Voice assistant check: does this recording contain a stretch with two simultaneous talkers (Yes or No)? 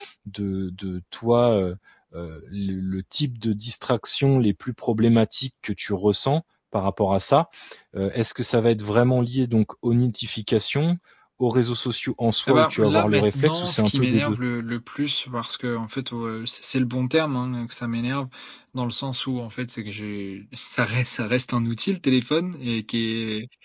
Yes